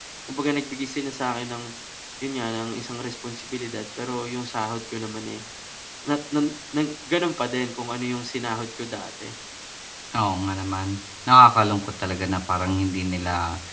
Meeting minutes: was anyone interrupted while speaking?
No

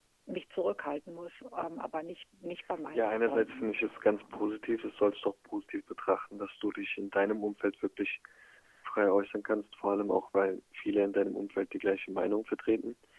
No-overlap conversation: No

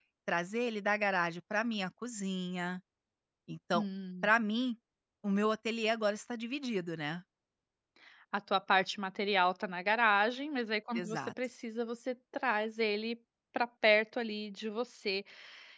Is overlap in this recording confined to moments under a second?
Yes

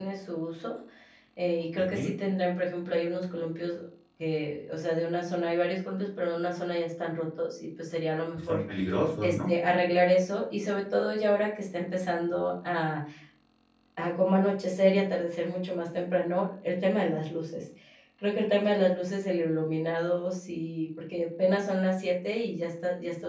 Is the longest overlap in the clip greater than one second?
No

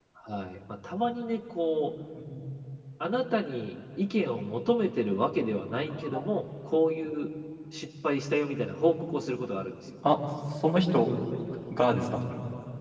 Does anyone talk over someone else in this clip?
No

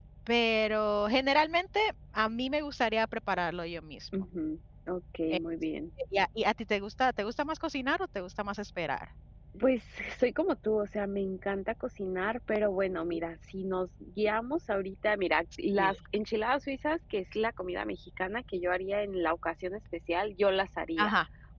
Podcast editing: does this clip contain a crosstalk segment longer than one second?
No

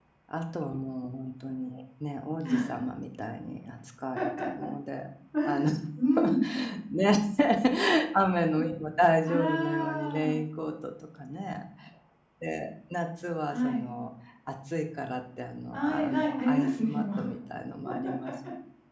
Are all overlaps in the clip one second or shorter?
No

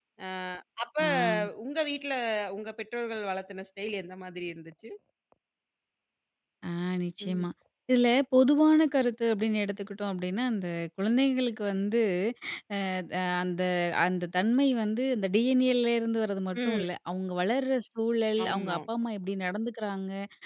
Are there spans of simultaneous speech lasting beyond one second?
No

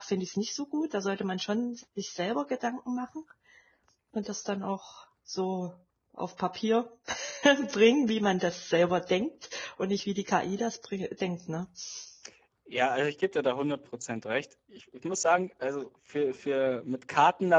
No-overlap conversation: Yes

